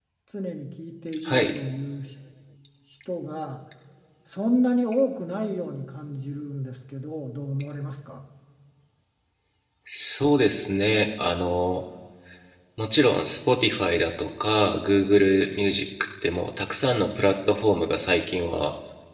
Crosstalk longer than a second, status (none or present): none